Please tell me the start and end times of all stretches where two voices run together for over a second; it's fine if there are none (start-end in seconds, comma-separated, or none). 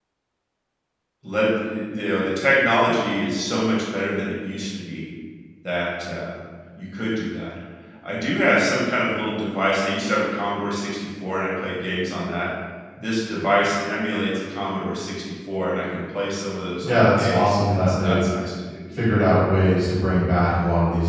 16.8-18.2